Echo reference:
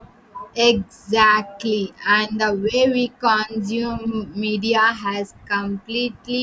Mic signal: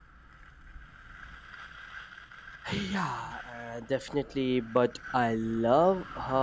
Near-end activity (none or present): present